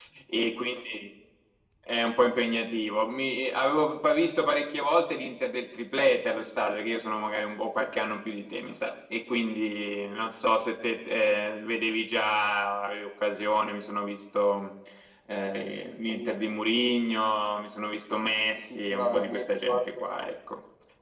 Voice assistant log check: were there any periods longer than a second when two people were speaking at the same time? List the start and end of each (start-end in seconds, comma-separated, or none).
18.6-19.9